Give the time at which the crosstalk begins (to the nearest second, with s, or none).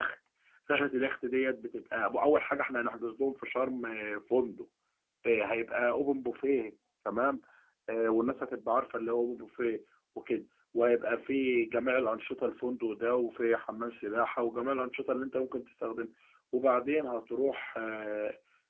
none